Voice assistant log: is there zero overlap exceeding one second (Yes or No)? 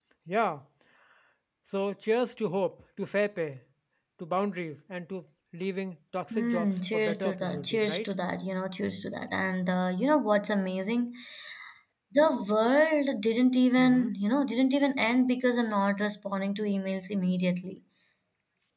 No